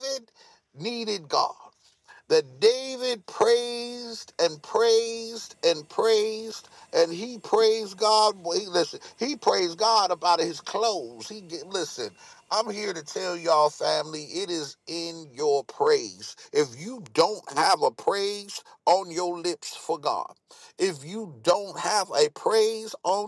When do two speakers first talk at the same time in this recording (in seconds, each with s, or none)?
none